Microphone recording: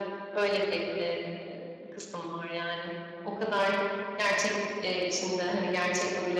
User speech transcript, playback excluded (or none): none